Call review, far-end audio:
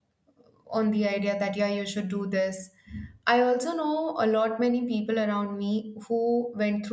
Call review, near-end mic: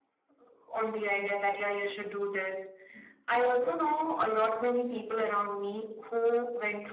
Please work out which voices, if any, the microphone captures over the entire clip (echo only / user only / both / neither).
echo only